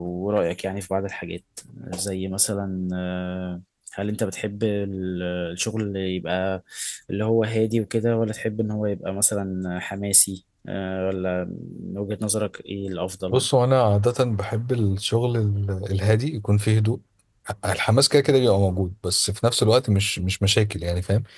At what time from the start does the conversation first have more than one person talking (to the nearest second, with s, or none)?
none